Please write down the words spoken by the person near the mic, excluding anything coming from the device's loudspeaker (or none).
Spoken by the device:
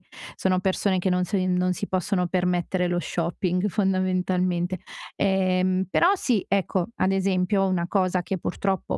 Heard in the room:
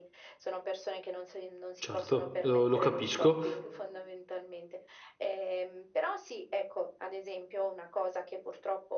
Certo, lo lo capisco.